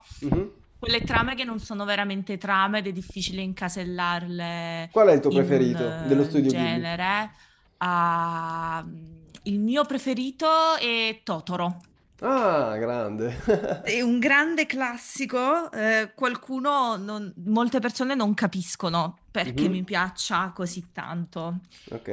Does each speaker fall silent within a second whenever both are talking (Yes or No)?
No